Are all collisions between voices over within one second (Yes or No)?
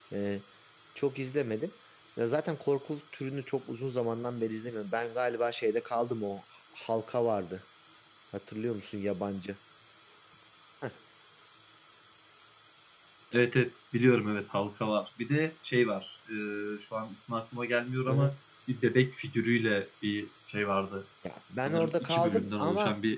No